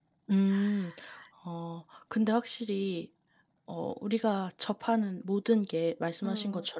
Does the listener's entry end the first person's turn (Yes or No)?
No